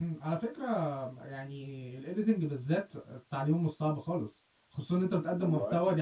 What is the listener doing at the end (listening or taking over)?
listening